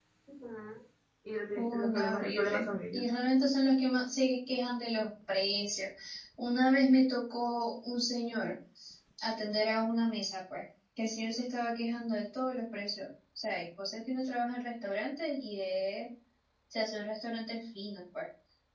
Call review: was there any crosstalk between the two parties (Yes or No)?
Yes